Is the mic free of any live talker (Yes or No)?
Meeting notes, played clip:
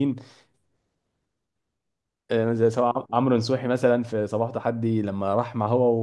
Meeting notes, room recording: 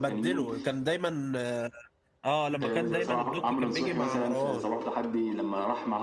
No